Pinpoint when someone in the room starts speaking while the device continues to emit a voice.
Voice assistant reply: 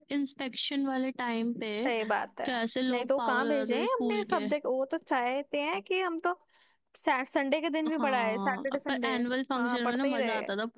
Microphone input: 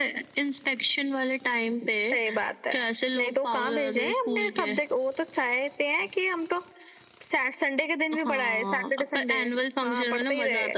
none

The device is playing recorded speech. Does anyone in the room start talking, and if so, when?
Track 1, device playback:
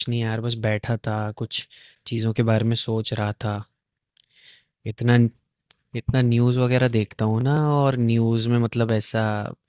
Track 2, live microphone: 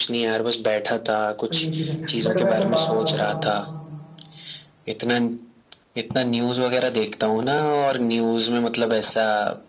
1.5 s

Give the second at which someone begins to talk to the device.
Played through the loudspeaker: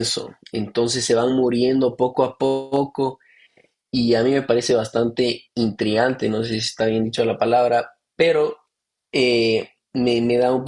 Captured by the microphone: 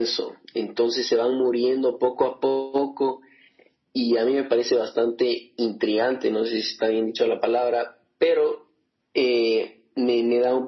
none

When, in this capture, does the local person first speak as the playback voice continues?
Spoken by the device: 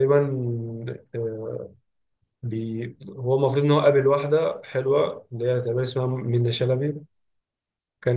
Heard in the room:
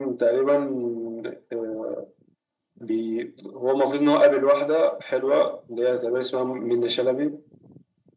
none

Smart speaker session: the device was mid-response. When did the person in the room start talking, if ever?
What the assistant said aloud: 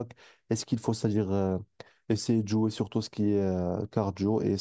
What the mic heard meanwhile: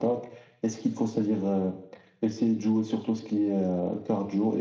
none

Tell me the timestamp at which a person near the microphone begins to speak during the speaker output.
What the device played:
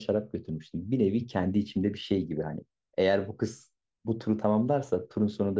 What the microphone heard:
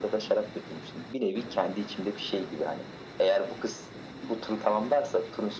none

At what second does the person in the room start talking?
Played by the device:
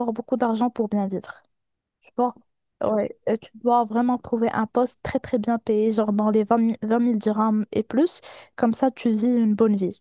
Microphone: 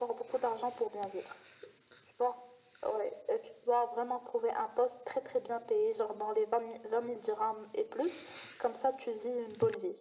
none

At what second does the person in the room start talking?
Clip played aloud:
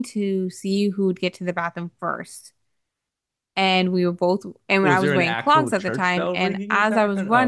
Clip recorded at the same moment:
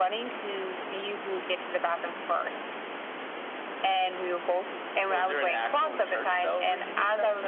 none

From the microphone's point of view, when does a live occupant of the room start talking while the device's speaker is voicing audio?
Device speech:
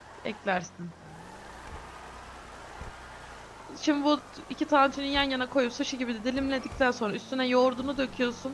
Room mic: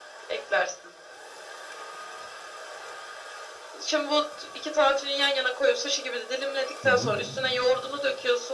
6.8 s

